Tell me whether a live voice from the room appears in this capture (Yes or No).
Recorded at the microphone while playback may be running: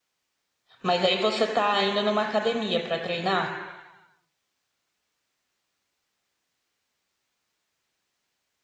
Yes